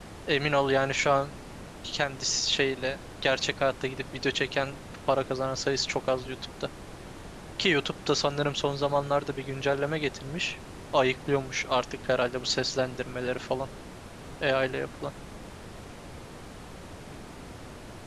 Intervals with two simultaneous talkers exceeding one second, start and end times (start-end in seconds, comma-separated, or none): none